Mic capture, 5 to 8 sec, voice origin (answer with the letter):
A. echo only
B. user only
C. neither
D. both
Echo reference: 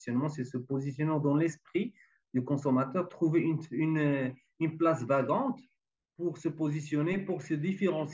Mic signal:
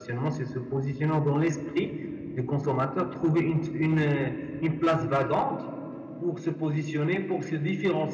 A